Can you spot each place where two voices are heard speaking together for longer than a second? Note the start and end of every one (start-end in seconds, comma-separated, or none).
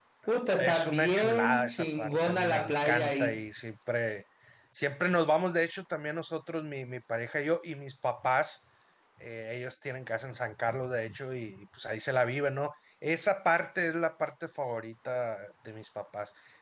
0.6-3.4